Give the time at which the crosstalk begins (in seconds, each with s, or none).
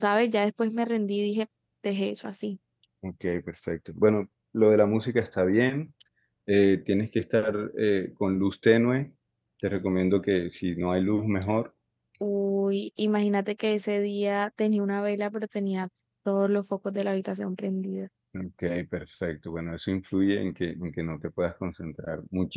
none